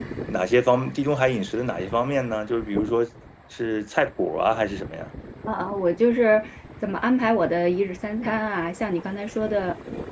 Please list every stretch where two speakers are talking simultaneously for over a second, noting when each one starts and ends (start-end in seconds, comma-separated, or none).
none